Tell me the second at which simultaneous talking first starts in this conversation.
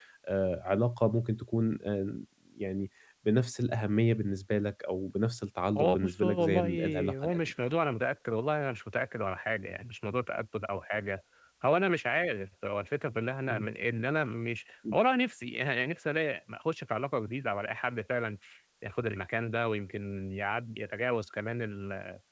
5.8 s

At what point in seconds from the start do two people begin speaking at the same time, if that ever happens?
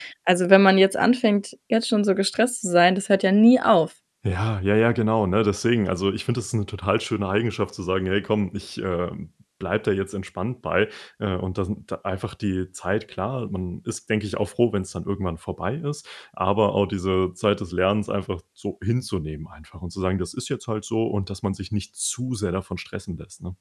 none

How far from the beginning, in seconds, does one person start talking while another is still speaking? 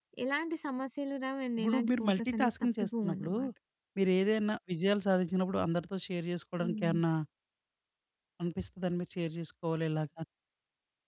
1.6 s

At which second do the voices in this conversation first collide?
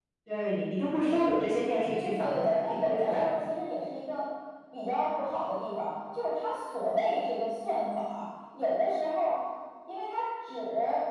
1.9 s

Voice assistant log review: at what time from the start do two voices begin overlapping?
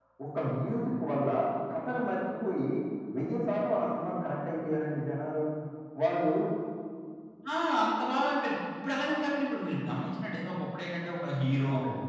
none

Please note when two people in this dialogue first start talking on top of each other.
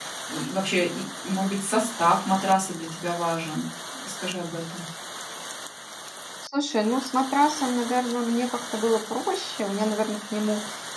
none

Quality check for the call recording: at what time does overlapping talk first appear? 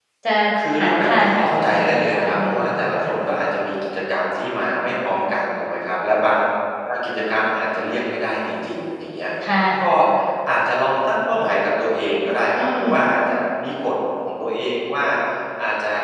0.8 s

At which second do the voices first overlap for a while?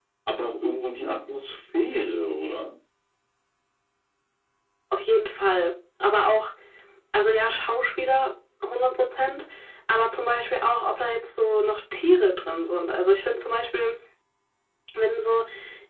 none

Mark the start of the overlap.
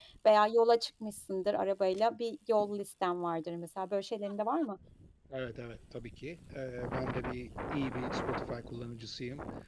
none

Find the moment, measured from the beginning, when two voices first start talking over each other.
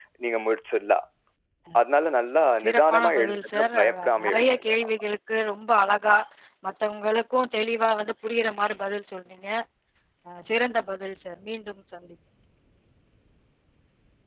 2.5 s

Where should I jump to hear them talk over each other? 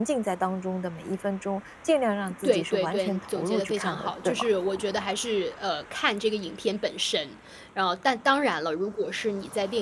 2.4 s

